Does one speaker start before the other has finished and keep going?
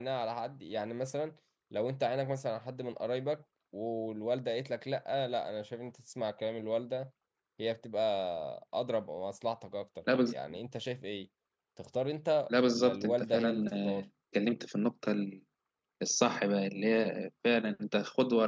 Yes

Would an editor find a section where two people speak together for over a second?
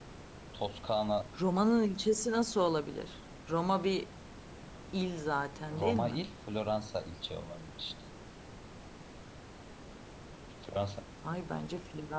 No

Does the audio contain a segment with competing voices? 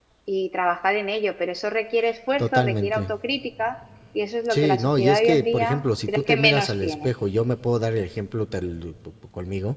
Yes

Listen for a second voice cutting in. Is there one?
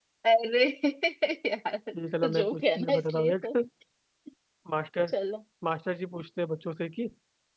Yes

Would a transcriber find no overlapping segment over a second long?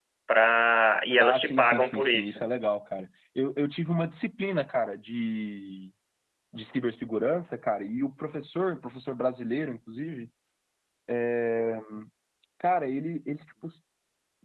No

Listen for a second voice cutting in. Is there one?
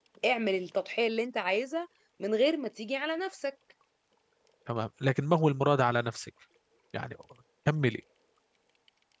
No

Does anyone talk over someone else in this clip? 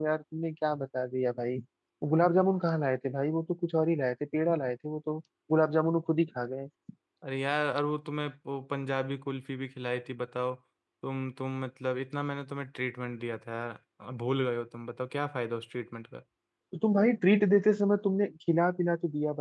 No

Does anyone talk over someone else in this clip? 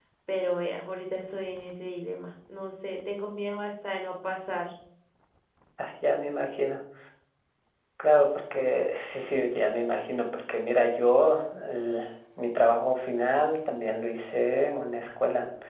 No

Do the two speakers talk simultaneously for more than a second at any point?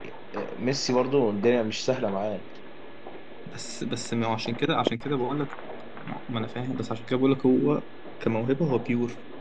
No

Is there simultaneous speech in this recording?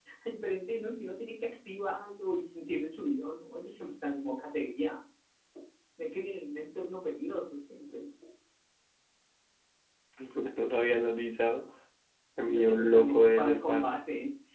Yes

